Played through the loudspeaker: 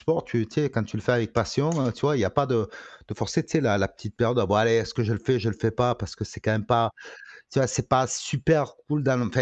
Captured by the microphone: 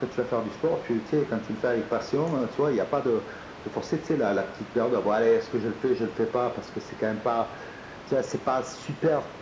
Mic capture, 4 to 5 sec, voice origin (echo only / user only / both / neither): echo only